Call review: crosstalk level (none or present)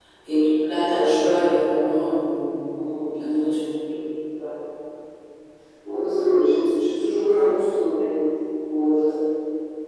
none